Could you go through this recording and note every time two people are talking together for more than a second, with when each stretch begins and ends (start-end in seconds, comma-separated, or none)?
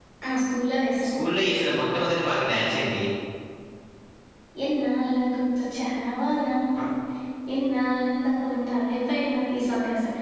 none